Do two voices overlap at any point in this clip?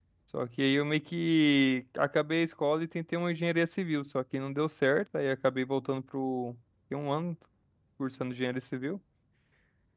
No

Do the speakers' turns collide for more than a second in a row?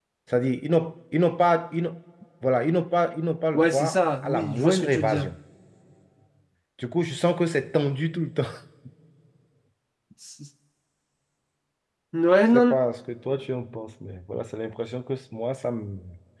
Yes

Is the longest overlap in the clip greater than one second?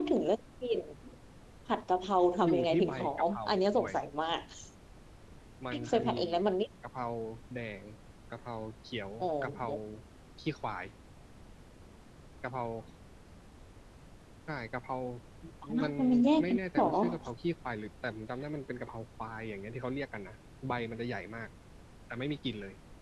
Yes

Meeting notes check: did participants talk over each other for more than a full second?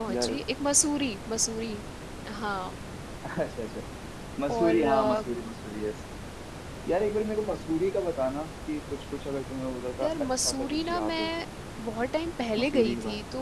Yes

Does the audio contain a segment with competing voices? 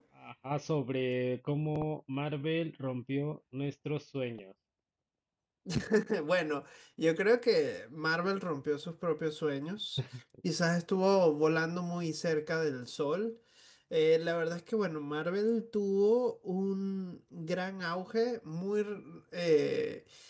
No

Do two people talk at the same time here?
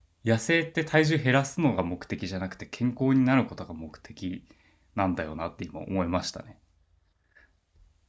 No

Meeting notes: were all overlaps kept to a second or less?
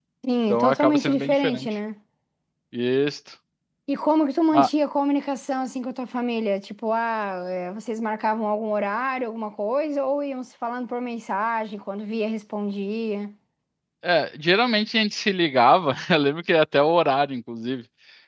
No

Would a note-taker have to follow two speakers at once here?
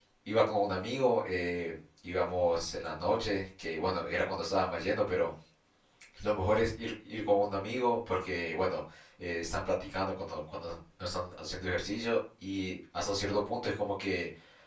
No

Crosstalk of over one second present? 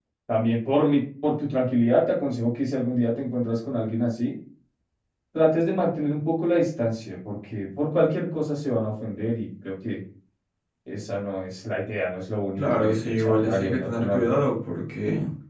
Yes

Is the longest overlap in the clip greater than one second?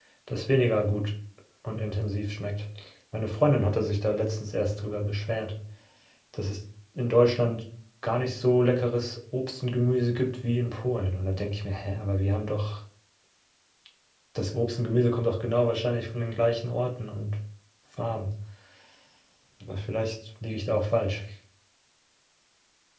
No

